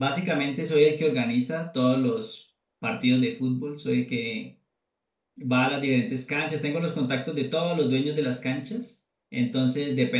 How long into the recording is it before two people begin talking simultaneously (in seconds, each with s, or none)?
none